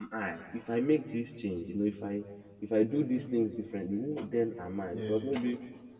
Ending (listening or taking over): listening